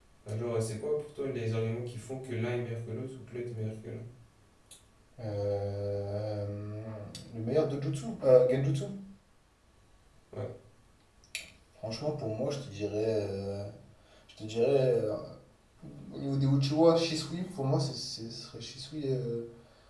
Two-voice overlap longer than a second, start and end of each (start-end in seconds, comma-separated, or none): none